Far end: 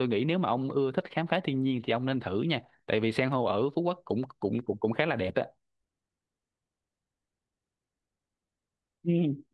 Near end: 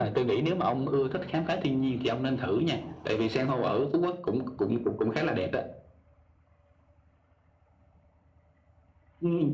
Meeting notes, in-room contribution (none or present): none